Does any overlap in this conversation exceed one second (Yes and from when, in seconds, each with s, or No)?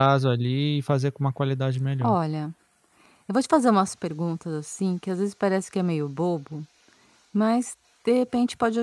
No